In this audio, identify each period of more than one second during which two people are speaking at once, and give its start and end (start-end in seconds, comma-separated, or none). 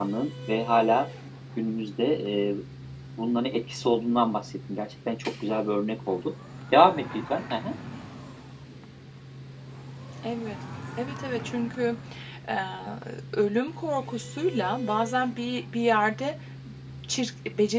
none